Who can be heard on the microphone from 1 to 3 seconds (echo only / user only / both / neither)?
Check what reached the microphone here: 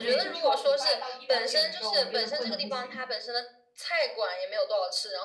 both